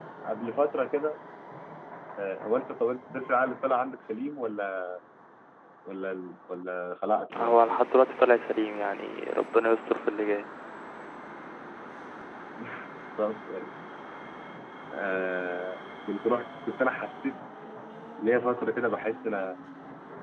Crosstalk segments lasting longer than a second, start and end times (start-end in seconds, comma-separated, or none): none